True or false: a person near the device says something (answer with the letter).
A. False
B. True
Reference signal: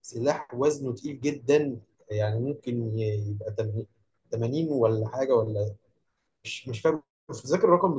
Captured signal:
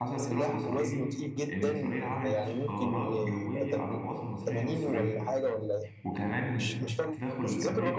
B